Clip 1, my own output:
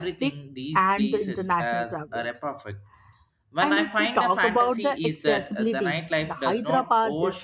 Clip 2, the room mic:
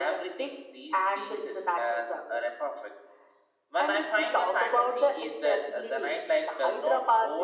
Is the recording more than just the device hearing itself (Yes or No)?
No